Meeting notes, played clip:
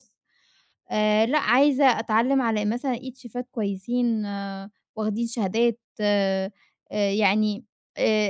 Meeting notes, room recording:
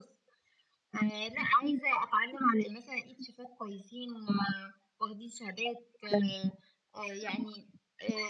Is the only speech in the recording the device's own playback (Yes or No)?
Yes